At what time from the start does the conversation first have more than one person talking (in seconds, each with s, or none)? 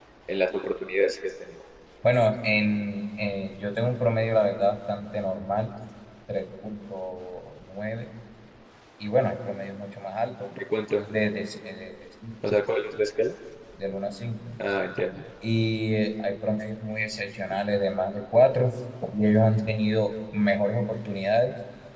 none